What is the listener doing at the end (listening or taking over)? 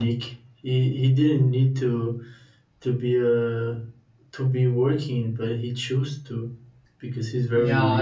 taking over